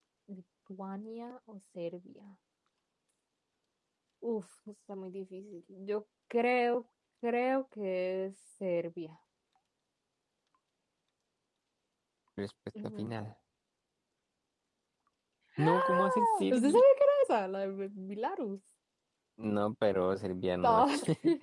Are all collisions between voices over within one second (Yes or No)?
No